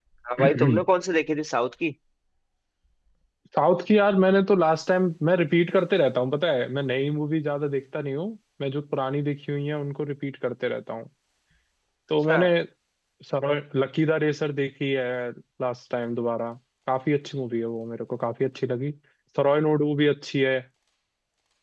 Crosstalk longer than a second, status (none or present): none